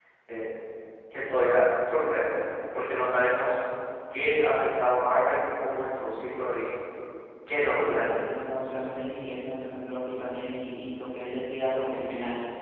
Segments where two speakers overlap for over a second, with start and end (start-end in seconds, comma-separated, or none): none